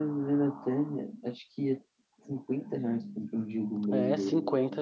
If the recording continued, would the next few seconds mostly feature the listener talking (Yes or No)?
Yes